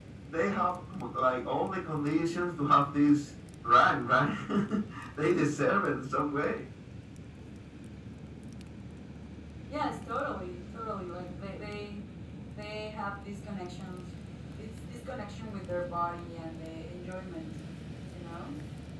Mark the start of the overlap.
none

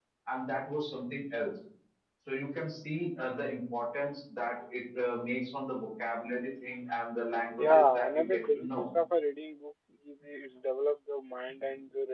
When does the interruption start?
8 s

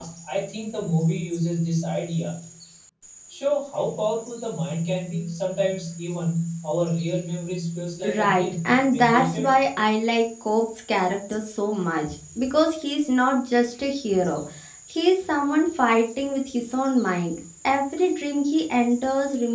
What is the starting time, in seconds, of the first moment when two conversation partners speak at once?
8 s

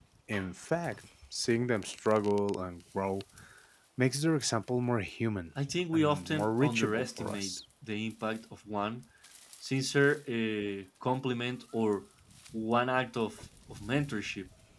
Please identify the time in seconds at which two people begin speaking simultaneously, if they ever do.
6 s

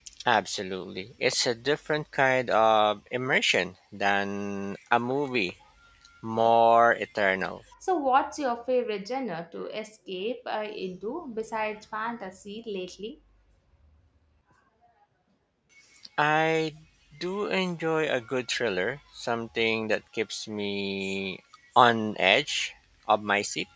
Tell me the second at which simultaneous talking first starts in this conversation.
none

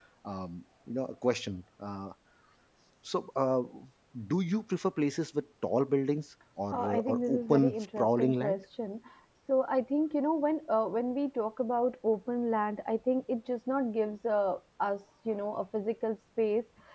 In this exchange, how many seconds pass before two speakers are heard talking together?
7 s

